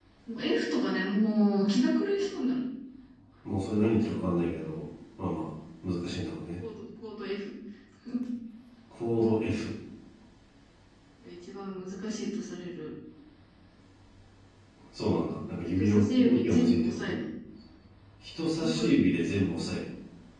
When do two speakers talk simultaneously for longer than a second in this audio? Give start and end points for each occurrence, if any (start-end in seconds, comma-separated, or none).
15.8-17.2